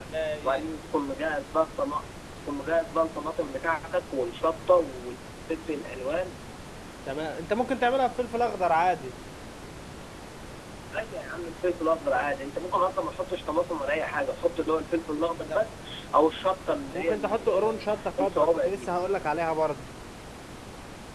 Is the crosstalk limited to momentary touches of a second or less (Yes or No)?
No